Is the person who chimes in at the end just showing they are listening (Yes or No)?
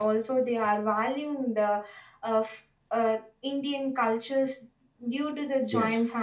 Yes